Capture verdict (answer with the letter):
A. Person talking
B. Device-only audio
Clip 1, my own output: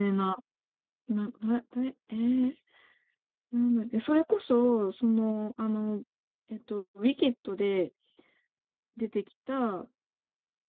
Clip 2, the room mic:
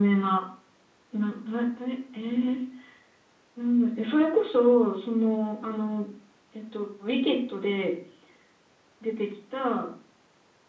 B